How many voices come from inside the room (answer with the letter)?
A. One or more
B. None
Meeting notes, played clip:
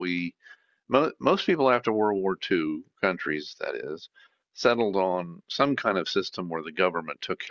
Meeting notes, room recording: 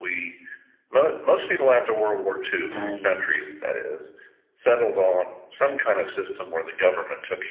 A